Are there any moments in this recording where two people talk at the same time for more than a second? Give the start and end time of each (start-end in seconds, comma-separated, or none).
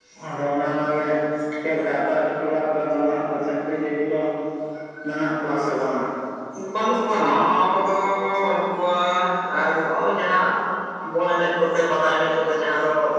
none